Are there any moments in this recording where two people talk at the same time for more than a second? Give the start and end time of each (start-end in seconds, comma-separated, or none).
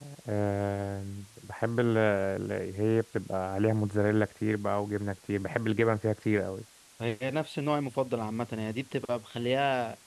none